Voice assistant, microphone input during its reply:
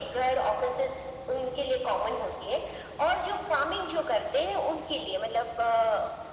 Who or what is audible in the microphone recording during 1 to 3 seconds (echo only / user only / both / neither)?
echo only